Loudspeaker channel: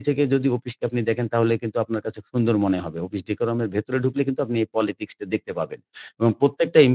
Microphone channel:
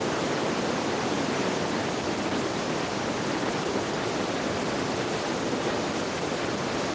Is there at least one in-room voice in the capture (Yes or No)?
No